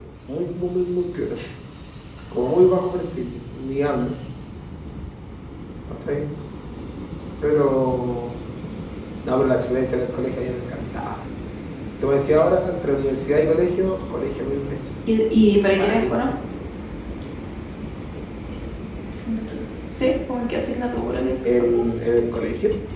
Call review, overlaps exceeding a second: none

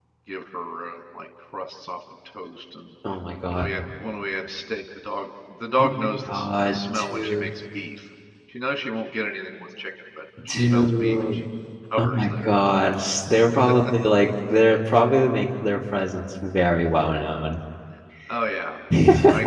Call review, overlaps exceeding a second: present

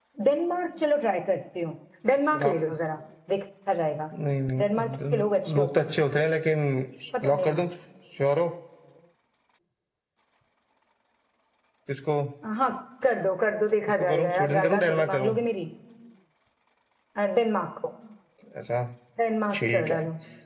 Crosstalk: present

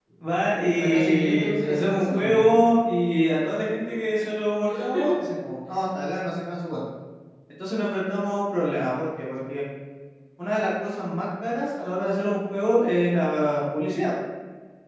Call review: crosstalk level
present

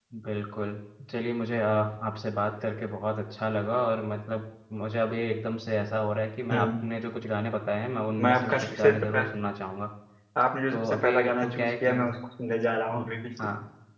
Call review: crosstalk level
present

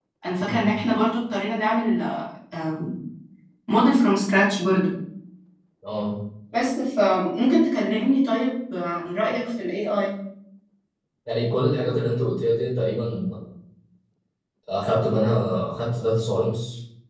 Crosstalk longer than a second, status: none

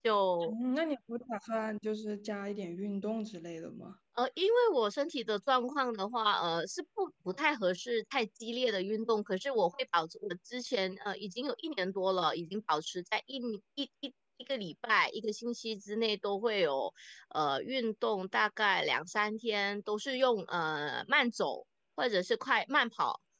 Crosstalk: none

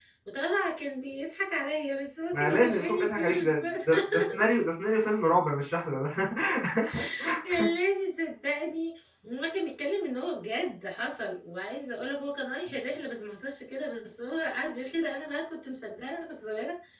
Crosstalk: present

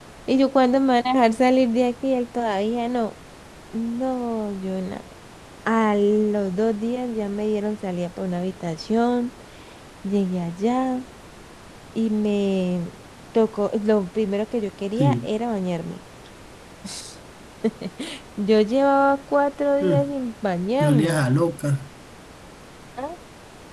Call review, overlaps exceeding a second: none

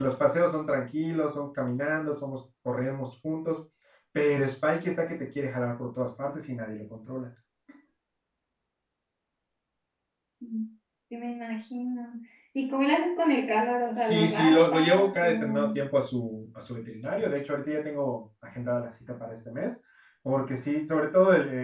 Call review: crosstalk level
present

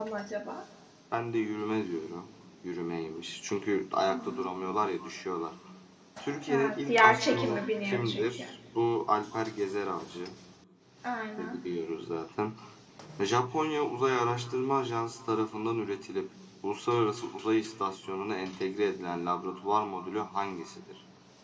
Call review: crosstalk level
present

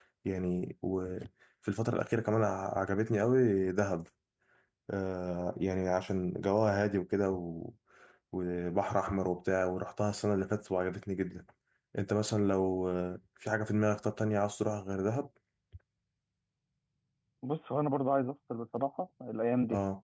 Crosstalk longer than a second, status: none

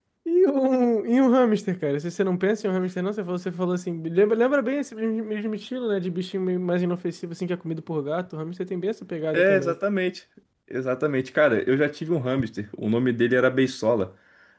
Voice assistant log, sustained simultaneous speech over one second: none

